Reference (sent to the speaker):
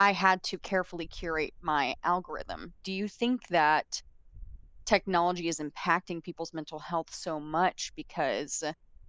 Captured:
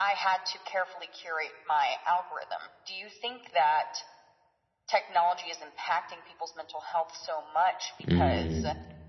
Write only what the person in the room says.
Mm.

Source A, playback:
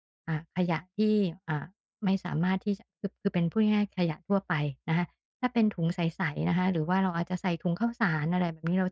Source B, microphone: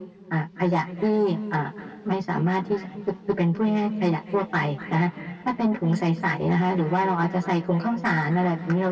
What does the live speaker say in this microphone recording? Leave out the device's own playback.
none

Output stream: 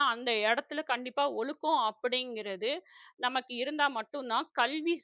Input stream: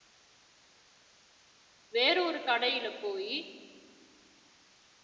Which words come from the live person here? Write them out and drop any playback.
வேற ஒரு கடையில போயி

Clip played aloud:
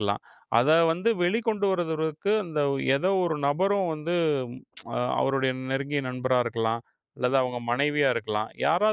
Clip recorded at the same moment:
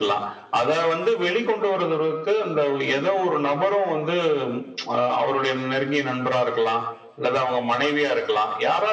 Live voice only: none

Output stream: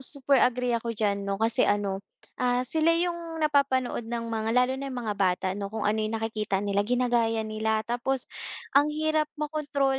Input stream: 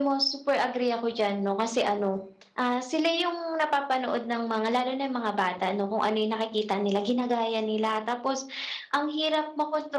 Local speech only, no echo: none

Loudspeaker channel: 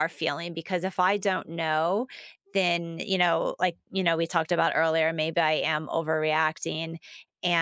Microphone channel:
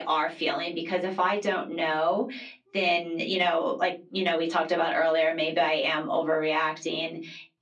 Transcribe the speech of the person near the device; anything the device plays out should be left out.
none

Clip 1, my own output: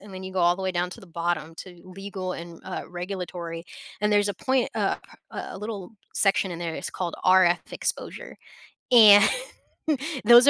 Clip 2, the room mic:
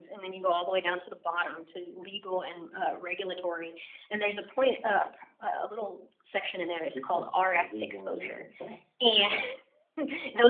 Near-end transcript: people are are getting more and more depressed

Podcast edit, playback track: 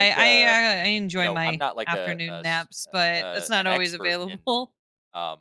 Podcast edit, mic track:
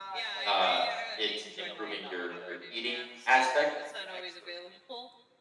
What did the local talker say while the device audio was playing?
uh, it improving your your eating aspect.

